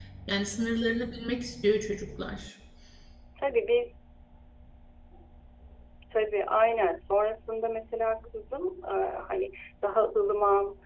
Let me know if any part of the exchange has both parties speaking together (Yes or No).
No